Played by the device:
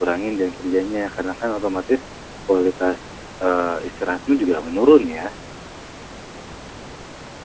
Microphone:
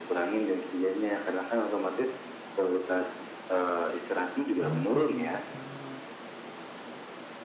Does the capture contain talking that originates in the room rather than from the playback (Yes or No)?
Yes